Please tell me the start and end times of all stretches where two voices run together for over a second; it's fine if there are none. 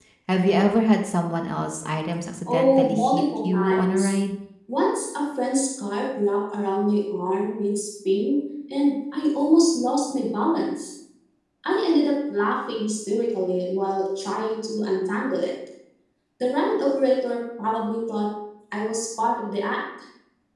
2.5-4.1

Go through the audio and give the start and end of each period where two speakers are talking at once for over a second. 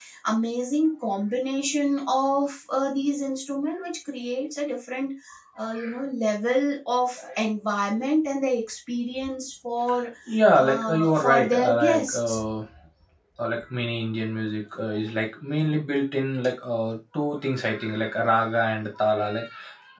10.6-12.4

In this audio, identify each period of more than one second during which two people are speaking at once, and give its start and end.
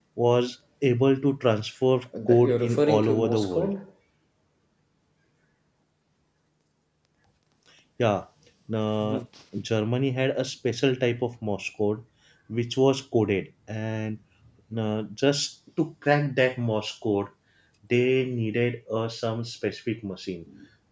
2.3-3.7

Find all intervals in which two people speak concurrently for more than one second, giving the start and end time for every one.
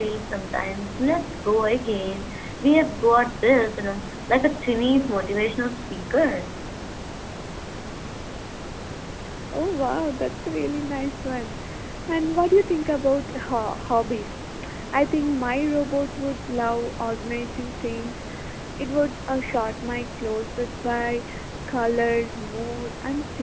none

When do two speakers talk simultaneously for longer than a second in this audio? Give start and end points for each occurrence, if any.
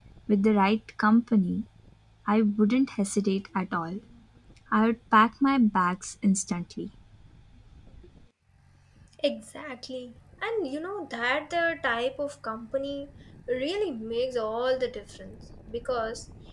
none

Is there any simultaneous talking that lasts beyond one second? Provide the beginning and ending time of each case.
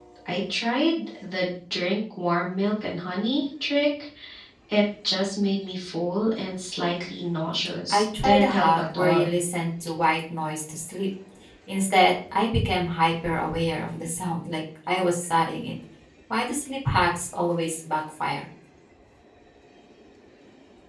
7.9-9.3

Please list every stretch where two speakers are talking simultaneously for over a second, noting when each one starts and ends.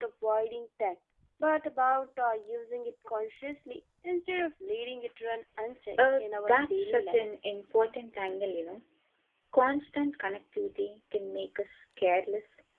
6.0-7.2

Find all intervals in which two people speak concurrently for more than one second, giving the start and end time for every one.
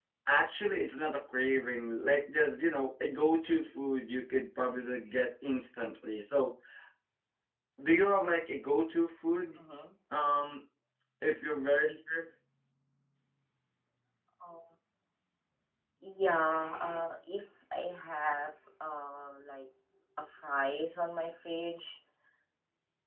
none

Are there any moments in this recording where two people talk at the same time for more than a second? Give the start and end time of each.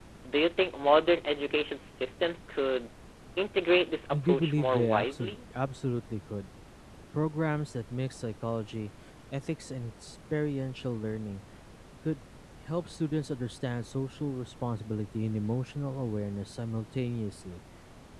4.1-5.4

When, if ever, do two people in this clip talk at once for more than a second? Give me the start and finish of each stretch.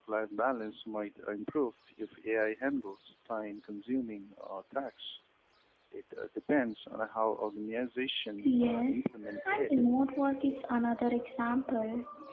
8.4-9.7

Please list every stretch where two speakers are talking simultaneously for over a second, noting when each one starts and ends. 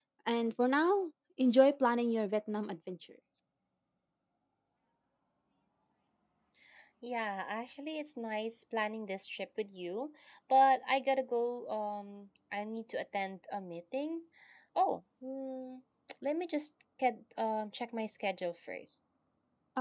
none

